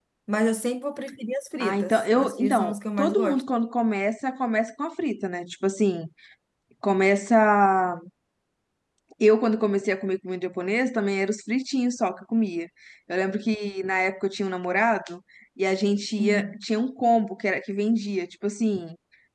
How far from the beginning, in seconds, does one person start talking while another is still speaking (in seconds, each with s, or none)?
1.6 s